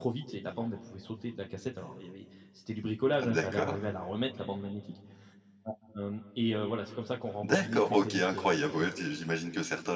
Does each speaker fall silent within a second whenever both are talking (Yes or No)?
No